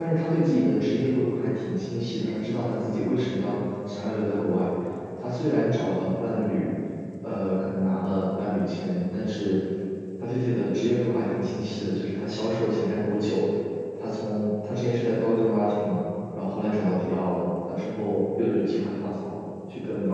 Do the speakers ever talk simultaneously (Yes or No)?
No